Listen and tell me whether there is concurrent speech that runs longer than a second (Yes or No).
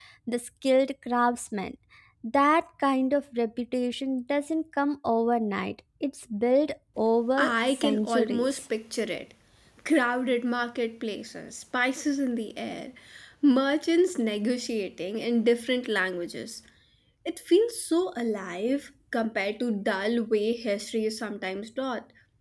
Yes